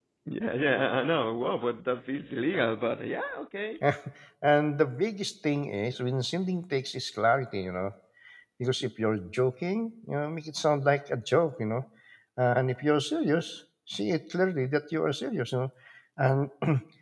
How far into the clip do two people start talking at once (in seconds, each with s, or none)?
none